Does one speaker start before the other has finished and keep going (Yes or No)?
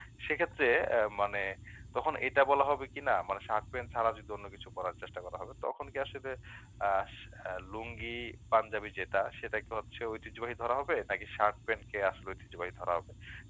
No